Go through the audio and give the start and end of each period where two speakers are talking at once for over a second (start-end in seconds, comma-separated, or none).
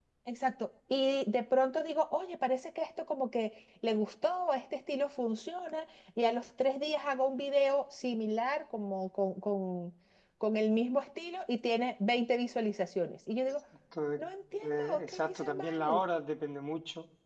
14.7-16.0